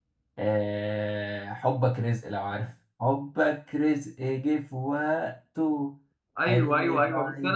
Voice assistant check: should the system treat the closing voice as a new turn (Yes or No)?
Yes